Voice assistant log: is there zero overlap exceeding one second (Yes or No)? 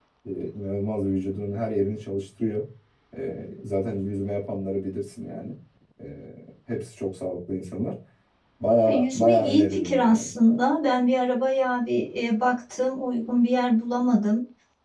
No